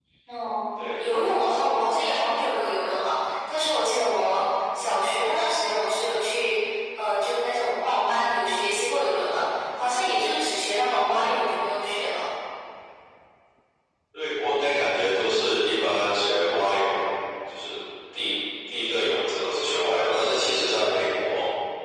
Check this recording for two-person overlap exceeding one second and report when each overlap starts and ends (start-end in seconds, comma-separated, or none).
none